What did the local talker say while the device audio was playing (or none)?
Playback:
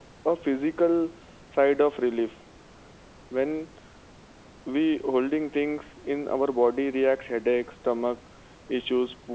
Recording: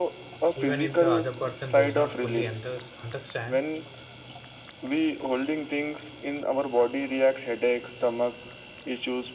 even if the other person does not fully under- understand